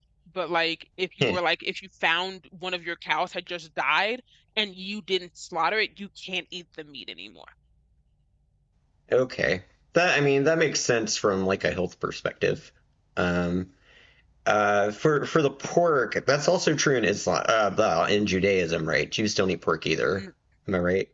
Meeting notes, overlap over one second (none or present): none